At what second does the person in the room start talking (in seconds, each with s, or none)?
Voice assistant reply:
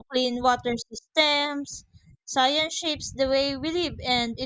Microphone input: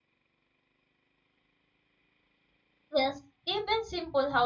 2.9 s